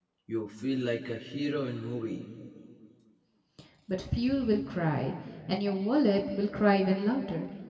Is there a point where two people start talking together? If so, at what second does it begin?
none

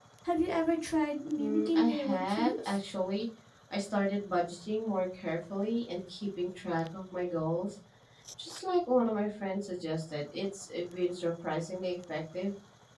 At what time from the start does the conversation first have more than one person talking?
1.4 s

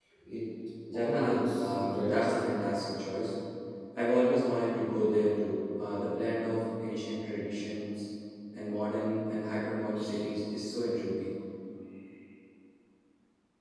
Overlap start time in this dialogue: 0.9 s

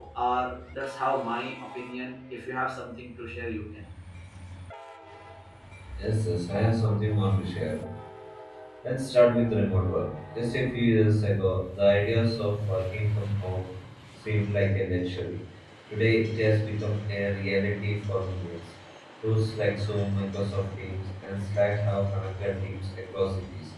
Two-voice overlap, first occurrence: none

